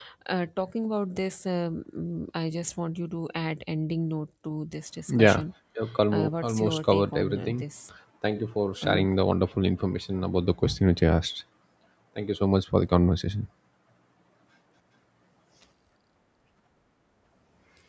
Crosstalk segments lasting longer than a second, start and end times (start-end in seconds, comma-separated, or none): 6.1-7.6